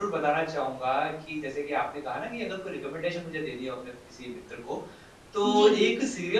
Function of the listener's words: listening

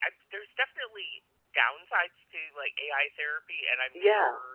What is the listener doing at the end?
listening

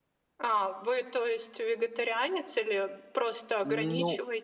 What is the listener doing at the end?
taking over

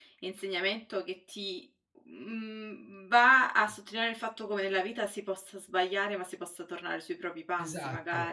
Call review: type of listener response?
taking over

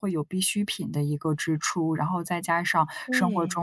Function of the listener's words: listening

